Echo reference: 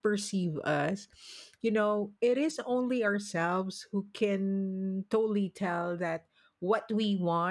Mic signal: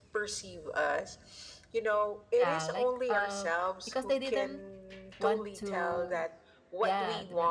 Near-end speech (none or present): present